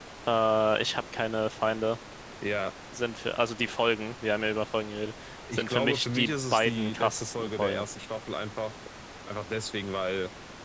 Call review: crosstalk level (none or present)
present